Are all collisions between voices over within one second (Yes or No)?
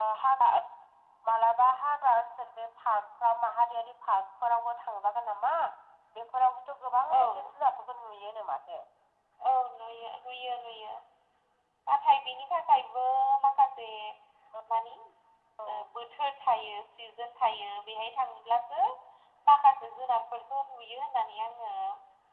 Yes